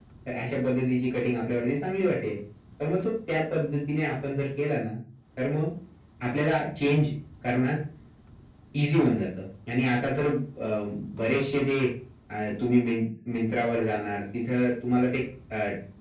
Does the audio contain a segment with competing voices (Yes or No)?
No